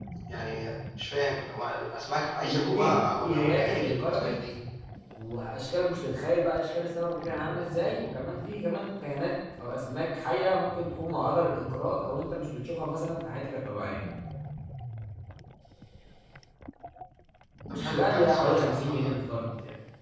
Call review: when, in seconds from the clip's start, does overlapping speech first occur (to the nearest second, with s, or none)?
2 s